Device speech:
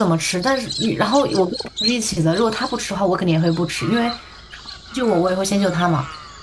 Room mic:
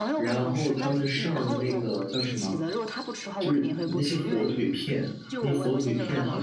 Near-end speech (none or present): present